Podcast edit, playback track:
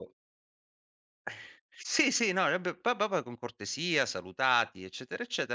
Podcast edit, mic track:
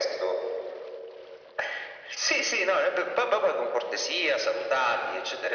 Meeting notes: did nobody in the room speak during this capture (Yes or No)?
Yes